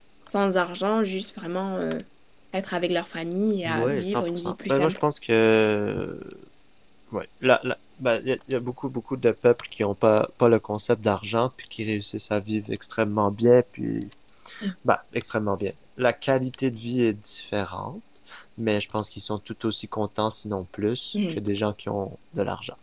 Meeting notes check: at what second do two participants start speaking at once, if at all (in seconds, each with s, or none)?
3.6 s